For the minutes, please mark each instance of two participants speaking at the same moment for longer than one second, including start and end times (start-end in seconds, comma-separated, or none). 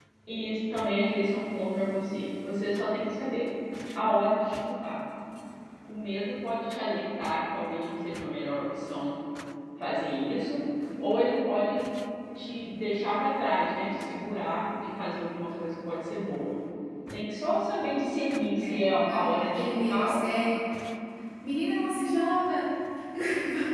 18.6-20.5